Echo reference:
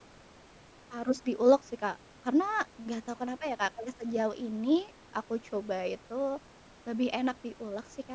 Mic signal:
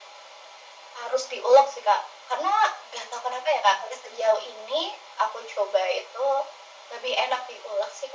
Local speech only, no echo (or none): none